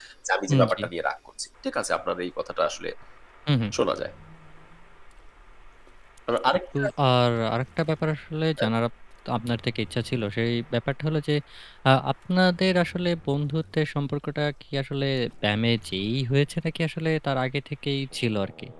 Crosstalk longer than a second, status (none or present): none